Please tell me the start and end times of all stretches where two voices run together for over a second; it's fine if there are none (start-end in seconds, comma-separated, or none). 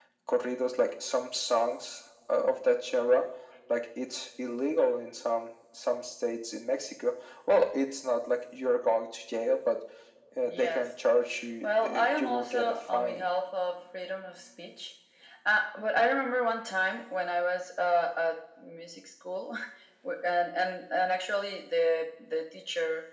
11.6-13.3